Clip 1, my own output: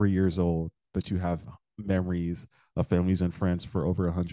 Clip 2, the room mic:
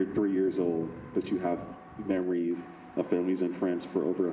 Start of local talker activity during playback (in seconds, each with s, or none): none